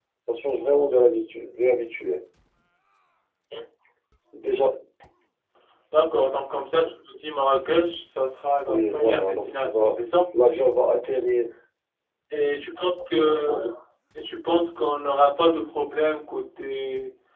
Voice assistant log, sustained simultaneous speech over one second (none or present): present